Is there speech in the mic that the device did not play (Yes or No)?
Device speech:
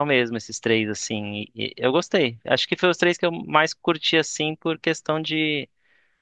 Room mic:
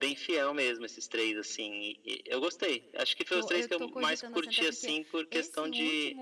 Yes